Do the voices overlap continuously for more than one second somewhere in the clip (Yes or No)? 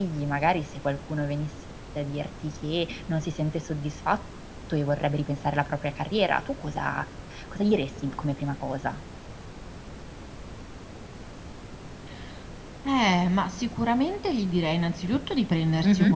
No